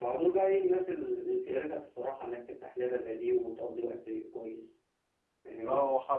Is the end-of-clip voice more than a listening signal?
Yes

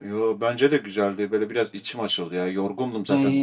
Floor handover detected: No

